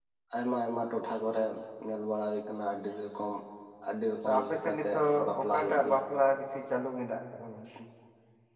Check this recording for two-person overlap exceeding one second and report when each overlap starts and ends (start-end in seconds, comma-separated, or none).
4.3-6.0